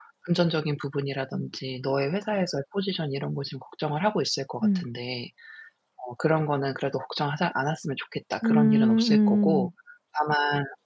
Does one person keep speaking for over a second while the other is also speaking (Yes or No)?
Yes